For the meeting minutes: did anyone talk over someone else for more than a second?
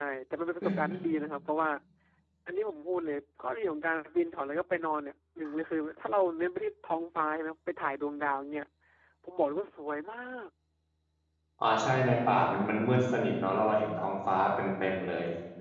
No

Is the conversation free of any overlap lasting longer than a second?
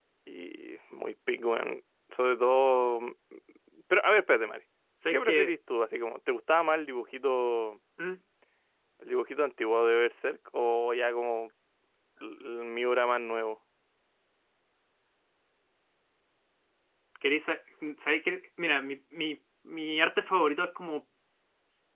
Yes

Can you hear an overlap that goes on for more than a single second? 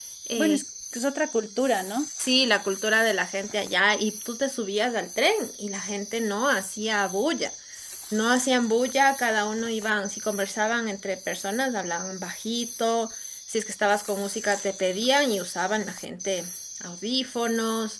No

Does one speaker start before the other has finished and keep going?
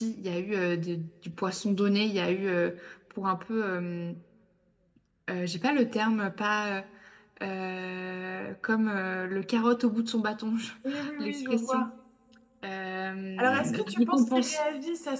Yes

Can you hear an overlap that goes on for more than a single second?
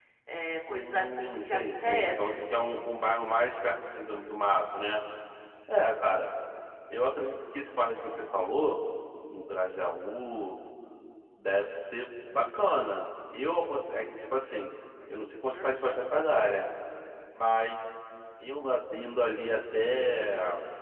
Yes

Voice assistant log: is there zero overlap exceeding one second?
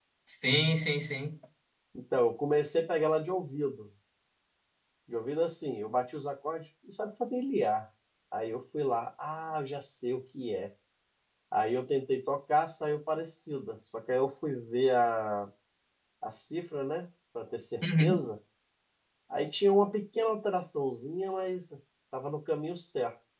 Yes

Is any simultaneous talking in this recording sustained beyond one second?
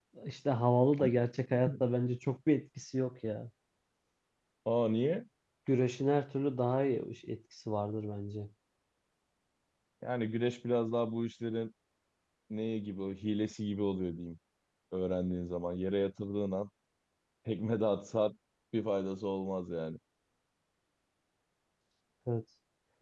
No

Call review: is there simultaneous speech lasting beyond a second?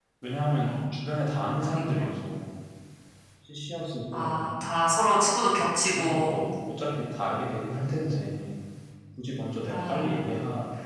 No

